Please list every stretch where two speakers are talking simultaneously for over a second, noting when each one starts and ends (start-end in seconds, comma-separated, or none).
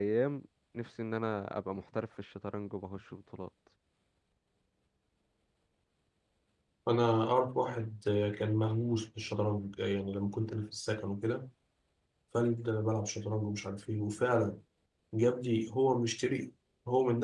none